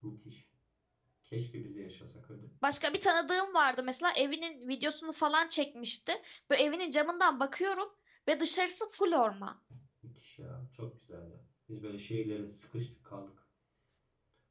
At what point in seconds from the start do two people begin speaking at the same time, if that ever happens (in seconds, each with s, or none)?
none